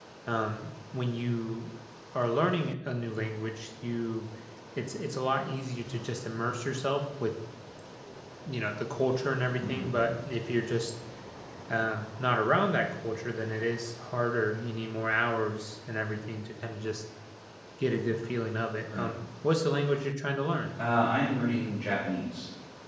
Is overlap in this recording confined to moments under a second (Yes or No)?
Yes